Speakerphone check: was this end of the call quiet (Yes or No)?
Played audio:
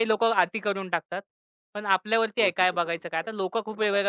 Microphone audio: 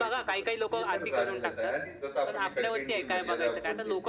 No